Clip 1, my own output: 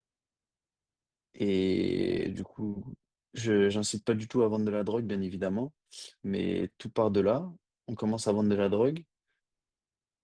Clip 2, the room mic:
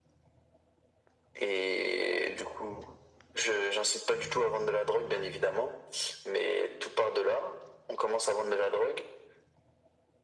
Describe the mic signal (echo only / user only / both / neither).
echo only